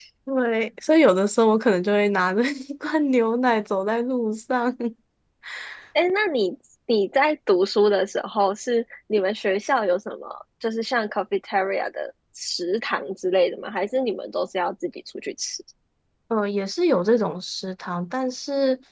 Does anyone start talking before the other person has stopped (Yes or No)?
No